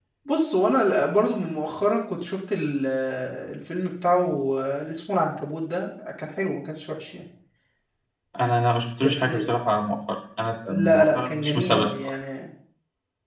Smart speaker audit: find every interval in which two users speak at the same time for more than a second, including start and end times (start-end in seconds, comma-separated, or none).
10.7-11.9